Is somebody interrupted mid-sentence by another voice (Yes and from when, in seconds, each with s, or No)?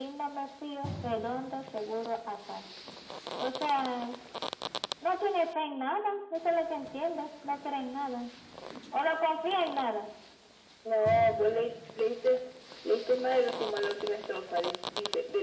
No